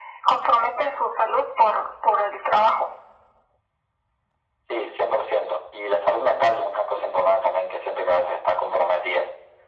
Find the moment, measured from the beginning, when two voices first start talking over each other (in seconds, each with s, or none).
none